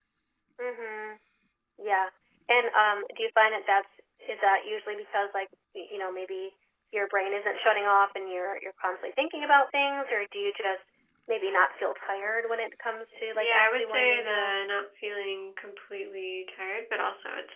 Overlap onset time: 13.3 s

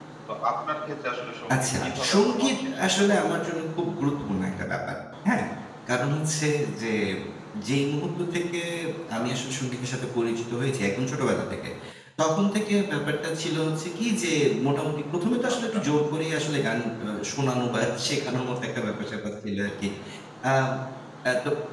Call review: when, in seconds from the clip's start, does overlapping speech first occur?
1.5 s

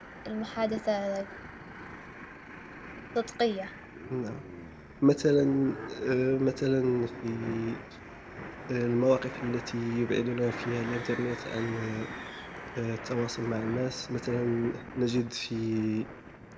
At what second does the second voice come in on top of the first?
none

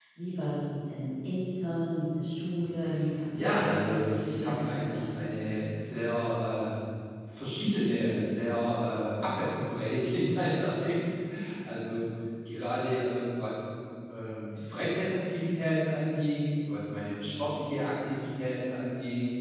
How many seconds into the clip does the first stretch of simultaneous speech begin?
3.4 s

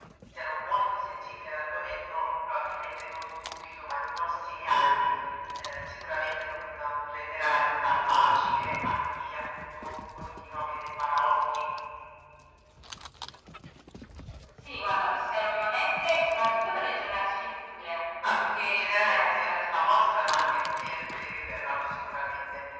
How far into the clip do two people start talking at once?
18.2 s

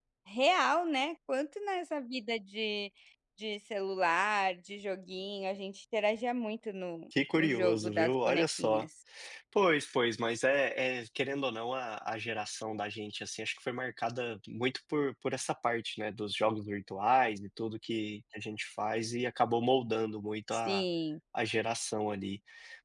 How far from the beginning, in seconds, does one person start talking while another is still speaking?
7.3 s

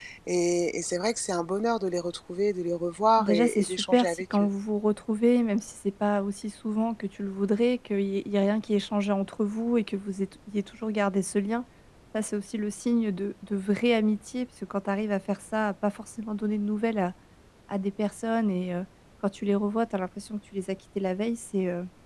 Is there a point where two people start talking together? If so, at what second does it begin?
3.2 s

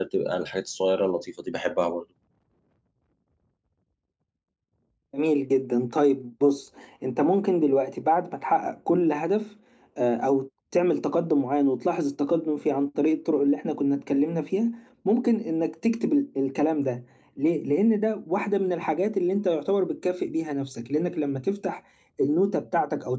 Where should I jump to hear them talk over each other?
none

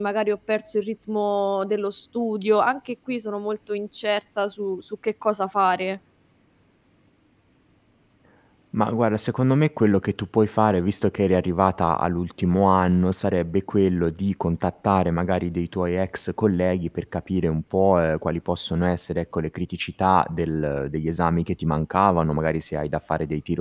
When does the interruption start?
none

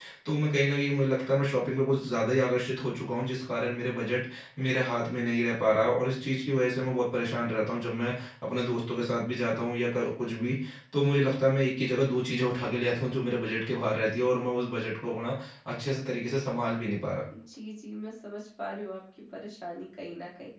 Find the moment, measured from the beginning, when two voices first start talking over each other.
none

